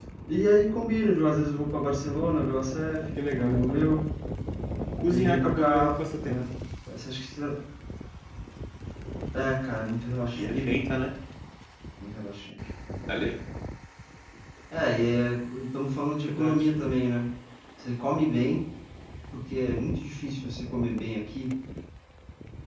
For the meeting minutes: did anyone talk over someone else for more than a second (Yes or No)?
Yes